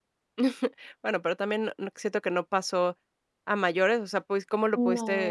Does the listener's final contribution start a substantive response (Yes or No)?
No